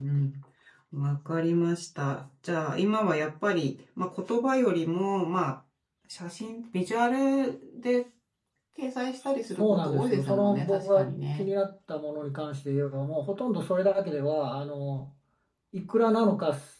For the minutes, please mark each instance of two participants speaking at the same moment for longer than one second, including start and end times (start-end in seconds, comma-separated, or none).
9.6-11.5